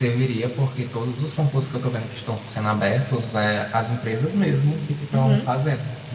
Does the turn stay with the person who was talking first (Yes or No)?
Yes